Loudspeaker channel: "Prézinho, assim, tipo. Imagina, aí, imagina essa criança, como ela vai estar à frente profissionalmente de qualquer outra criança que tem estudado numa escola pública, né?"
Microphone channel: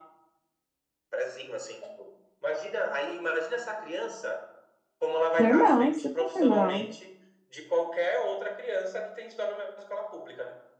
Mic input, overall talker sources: both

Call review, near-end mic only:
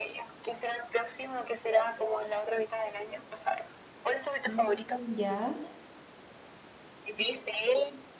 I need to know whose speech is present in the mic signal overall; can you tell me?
both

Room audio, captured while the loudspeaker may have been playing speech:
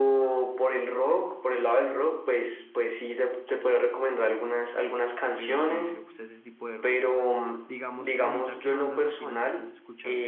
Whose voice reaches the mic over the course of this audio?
both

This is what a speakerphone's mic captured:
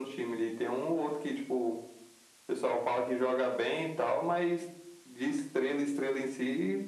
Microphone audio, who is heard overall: echo only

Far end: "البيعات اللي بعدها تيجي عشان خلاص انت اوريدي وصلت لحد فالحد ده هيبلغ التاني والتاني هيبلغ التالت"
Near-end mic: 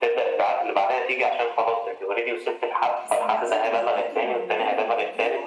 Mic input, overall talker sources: both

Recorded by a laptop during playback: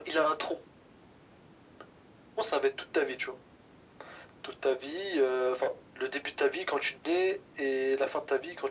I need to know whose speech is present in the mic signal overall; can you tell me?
echo only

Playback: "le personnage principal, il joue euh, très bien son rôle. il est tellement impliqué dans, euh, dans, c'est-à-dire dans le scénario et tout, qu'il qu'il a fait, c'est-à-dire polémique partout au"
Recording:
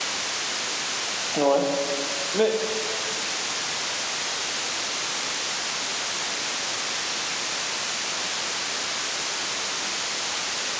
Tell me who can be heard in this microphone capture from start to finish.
user only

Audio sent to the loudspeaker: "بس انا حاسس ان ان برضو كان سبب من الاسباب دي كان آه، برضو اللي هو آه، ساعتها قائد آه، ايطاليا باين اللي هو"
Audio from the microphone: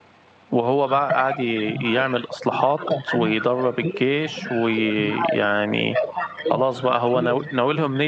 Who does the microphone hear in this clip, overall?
both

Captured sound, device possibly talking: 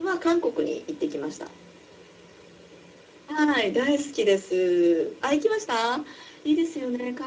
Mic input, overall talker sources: echo only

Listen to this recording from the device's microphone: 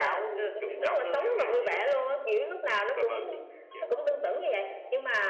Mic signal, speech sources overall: both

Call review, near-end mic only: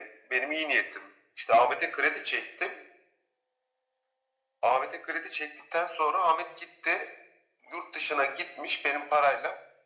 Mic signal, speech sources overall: echo only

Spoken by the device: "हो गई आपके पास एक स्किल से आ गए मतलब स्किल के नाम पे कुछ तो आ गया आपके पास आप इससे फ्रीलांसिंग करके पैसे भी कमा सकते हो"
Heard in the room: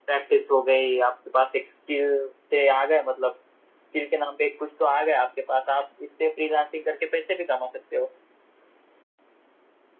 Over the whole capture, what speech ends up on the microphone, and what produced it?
echo only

